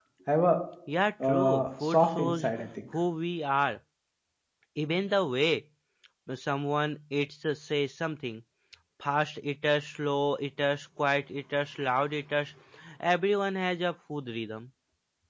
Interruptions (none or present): present